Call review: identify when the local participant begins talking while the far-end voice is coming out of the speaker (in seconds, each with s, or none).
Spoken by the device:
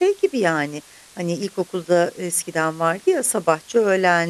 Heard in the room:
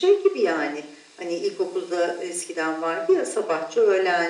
none